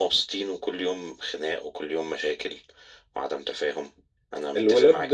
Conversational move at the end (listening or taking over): taking over